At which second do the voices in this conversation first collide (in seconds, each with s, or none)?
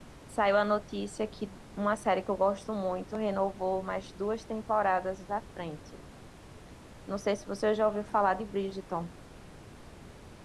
none